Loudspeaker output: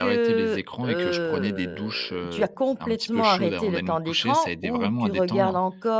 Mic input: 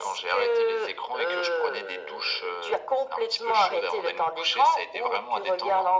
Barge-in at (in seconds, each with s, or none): none